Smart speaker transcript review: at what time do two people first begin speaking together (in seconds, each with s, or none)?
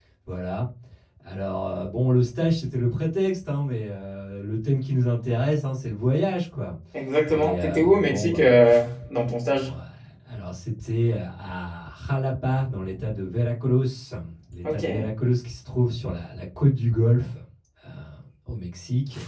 7.3 s